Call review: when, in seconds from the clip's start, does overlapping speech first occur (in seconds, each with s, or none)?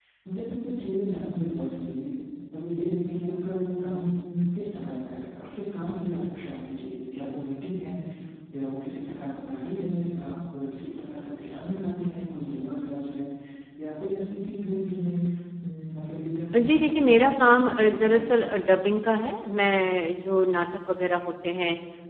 16.5 s